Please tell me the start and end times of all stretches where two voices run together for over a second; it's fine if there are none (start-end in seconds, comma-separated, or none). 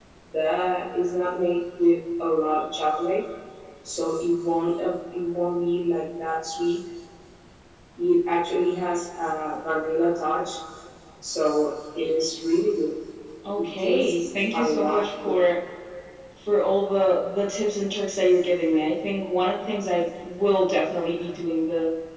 13.6-15.5